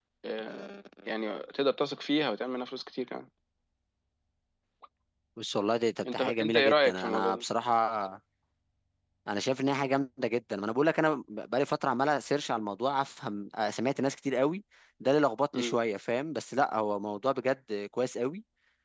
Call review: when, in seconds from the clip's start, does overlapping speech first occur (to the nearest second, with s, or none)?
6 s